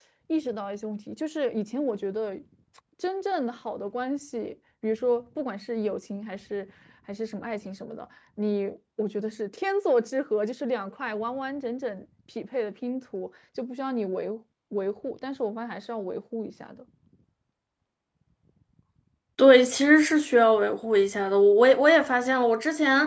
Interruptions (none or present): none